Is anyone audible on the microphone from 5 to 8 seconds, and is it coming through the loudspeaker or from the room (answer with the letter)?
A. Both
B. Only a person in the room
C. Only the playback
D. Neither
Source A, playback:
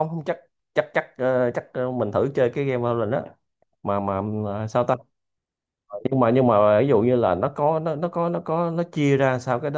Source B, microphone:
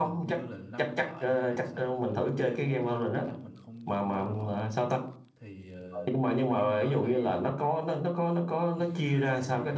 A